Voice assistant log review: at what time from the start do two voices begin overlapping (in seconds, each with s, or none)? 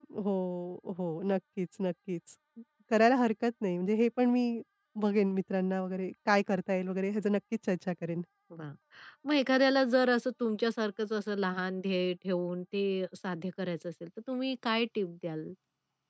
none